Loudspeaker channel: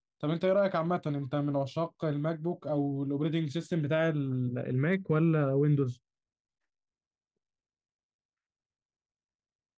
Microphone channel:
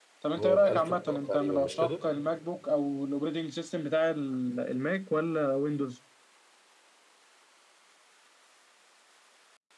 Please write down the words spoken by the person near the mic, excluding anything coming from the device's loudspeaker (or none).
هو ب 1000 دولار تقريبا مش كده